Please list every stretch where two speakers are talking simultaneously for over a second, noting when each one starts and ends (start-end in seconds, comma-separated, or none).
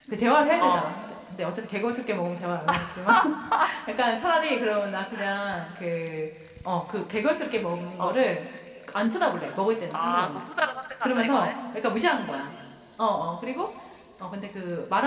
none